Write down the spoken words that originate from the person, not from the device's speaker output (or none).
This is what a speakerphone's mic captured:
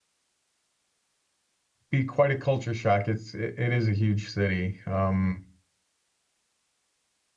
be quite a culture shock. It's it, it is a huge city. Um